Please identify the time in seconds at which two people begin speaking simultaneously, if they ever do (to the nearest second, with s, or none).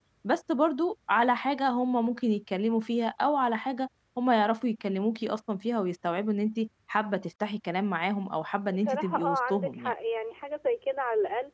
9 s